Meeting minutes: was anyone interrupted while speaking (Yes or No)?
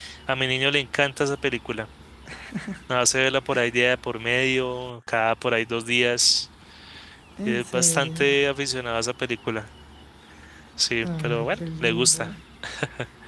Yes